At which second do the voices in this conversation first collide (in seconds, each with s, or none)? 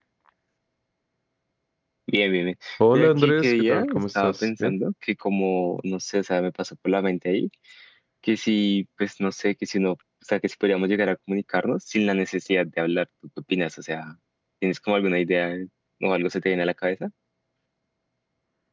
2.9 s